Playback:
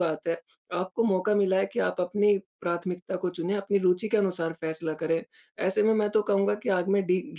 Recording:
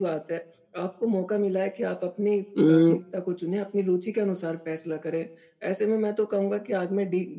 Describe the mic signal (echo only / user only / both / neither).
both